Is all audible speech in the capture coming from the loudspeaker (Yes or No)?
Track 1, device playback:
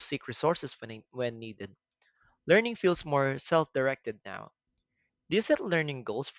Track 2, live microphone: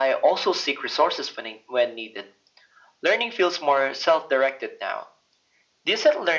Yes